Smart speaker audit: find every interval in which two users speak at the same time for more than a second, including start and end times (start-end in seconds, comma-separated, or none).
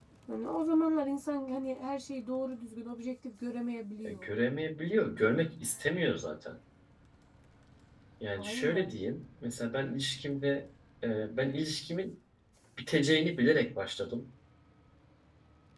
none